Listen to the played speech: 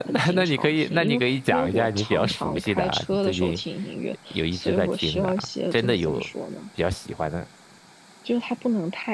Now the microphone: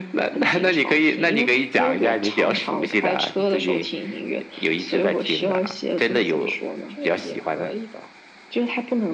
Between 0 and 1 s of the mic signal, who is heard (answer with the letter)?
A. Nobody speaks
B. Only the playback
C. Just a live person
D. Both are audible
B